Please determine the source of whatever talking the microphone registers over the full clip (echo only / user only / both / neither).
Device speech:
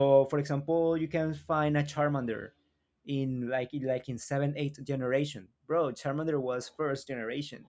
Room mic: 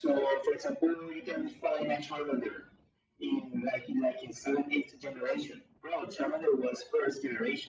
echo only